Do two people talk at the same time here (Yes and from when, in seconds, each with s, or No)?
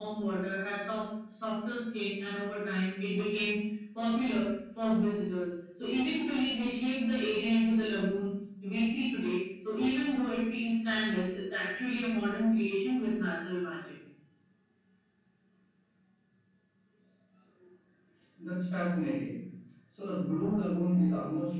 No